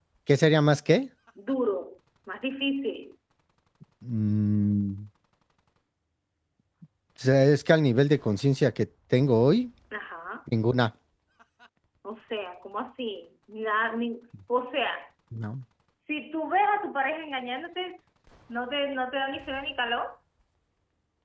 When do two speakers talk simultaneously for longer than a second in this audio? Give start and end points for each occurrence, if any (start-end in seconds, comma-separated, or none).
none